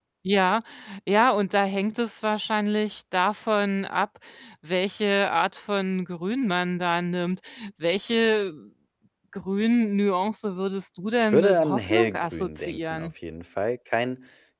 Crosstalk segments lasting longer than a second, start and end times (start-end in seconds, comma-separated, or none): 11.2-13.1